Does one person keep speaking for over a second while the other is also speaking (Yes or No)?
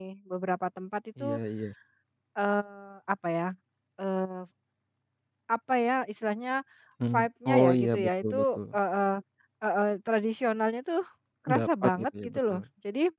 Yes